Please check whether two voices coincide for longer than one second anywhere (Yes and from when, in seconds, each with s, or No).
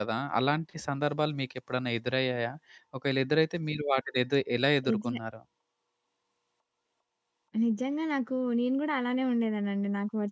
No